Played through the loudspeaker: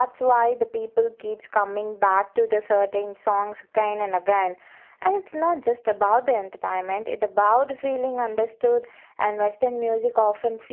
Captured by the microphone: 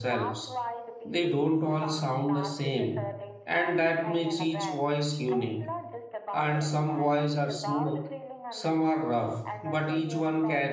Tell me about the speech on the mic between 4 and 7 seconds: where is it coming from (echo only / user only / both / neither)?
both